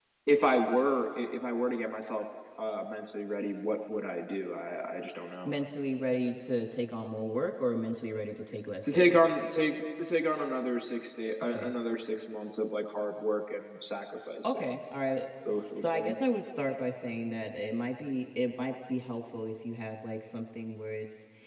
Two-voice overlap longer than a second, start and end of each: none

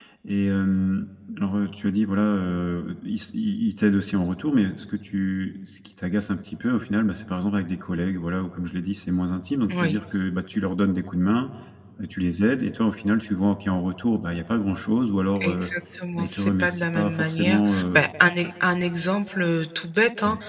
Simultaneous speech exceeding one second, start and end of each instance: 16.1-18.0

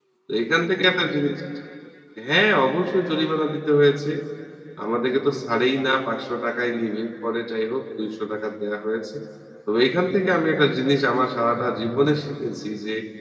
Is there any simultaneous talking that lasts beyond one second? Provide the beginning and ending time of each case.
none

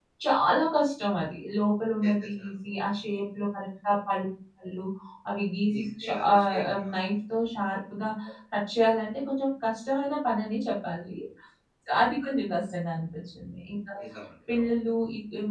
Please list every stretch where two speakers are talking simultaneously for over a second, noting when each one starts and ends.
5.7-7.0

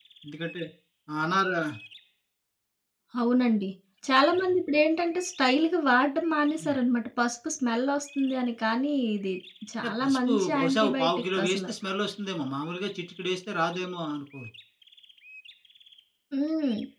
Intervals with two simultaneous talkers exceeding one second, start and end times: 9.8-11.7

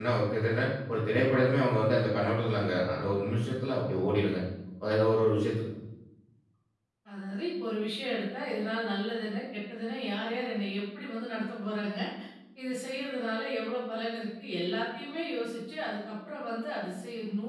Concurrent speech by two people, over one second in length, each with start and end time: none

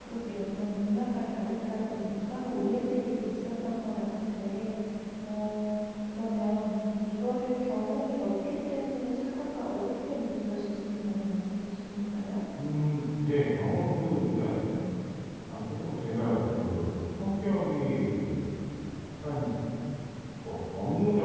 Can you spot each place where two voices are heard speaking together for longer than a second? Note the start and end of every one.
none

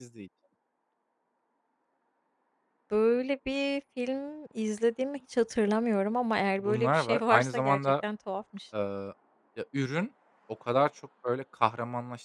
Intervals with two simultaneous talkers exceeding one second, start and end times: 6.7-7.9

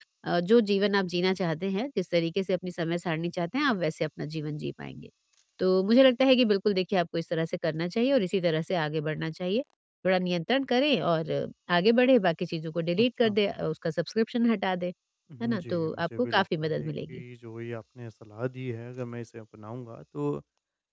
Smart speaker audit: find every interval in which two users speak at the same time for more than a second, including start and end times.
15.4-17.2

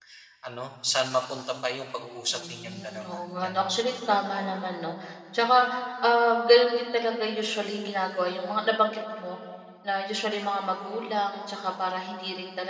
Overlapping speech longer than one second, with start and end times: 2.3-3.8

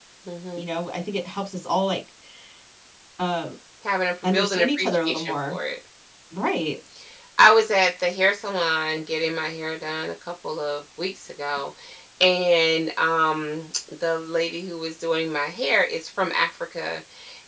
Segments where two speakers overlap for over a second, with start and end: 4.2-5.6

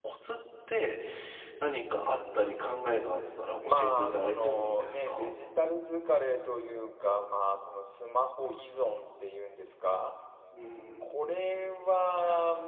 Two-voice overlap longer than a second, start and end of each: 3.6-5.3

